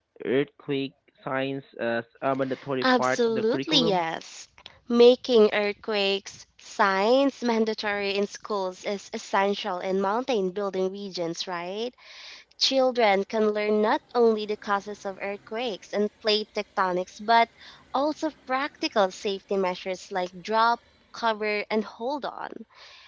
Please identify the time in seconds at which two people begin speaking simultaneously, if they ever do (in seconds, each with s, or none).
2.8 s